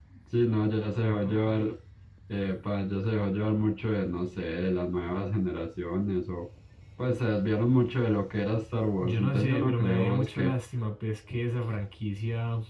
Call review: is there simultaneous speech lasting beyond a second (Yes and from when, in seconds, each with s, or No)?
Yes, from 9.0 s